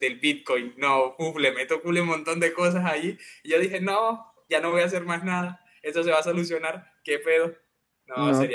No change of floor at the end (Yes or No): No